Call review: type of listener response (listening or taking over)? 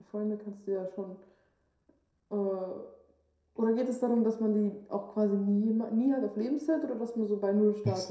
taking over